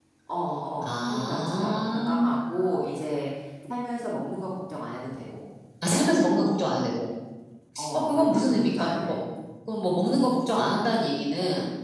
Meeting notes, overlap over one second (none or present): present